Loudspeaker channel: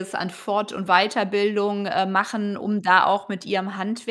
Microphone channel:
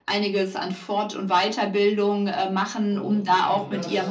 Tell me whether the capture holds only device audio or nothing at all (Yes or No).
No